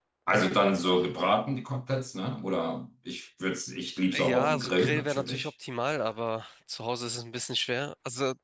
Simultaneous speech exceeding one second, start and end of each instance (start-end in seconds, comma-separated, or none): 4.1-5.5